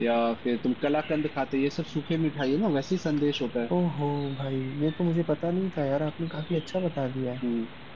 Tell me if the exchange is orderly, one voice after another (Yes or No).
Yes